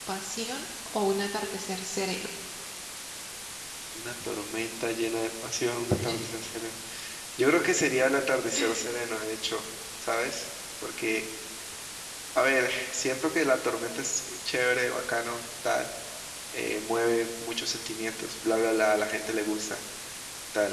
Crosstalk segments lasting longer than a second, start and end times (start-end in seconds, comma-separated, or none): none